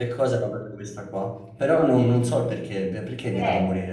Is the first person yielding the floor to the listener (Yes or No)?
Yes